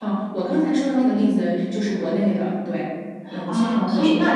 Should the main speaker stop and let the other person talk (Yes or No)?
Yes